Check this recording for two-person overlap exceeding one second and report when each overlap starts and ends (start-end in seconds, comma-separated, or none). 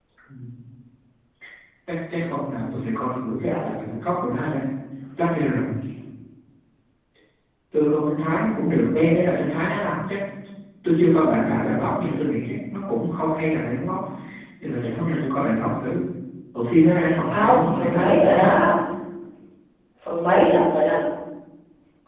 17.3-18.5